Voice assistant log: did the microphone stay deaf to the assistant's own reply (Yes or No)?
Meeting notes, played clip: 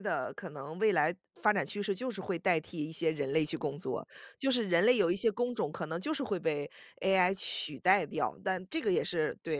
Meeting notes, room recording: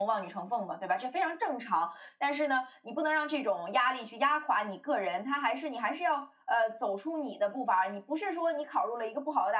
Yes